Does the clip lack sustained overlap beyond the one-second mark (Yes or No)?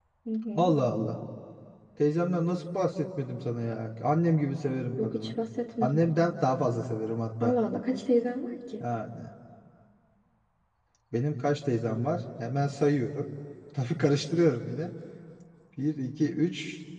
Yes